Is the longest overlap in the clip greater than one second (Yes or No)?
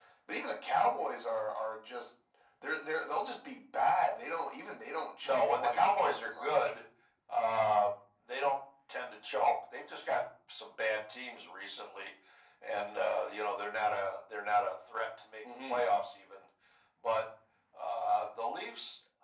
Yes